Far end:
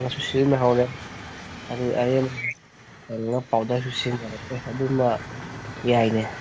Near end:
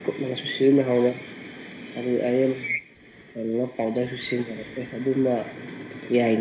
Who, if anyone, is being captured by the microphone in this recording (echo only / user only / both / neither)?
echo only